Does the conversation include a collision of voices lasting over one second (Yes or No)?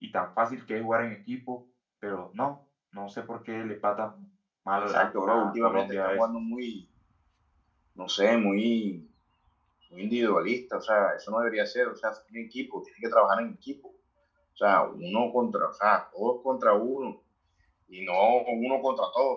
Yes